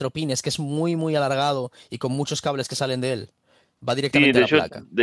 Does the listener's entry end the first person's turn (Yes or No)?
Yes